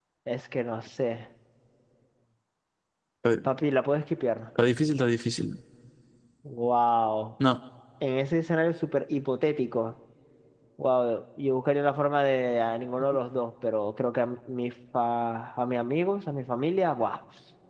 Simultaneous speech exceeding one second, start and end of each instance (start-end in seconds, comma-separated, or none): none